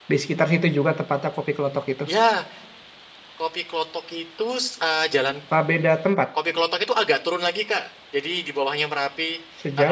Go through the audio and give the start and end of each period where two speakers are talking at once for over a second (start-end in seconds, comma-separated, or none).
none